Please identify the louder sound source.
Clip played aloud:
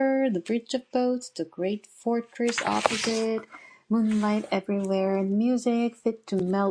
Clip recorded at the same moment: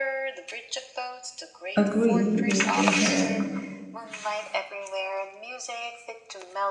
user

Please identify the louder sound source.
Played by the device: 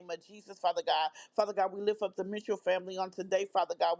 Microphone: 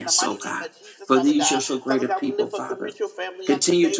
user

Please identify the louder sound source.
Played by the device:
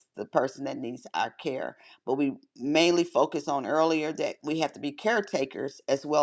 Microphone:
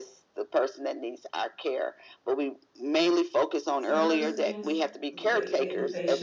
echo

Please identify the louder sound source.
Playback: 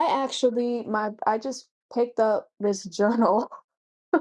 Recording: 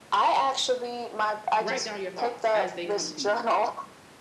echo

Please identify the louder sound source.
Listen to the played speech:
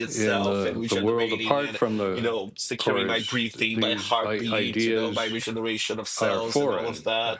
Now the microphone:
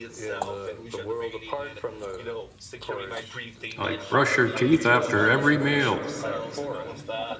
user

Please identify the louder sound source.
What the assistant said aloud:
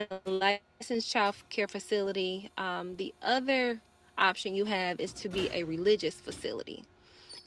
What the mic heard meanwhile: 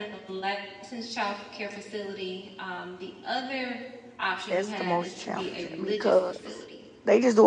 user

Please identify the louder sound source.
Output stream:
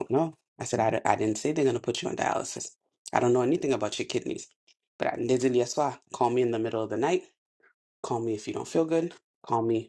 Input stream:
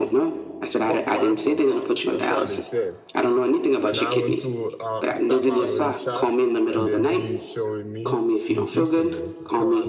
echo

